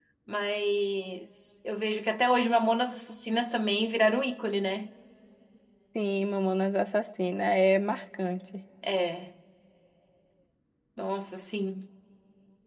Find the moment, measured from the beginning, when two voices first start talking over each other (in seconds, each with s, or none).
none